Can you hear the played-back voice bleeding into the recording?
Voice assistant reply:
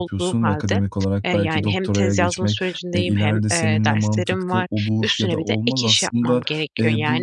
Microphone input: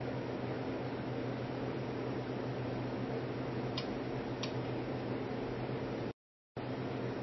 No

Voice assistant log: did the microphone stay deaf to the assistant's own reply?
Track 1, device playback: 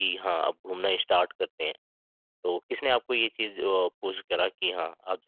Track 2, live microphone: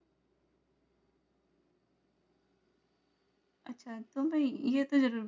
Yes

